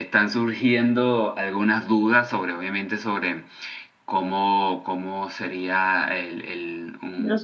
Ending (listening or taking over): listening